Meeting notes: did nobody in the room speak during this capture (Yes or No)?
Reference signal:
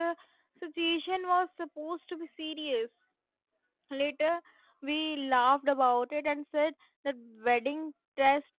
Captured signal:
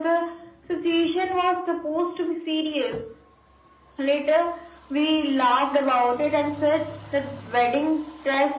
Yes